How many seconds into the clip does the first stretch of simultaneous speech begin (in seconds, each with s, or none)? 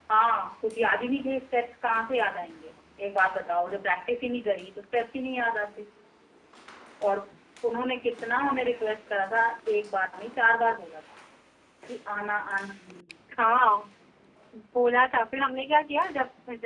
none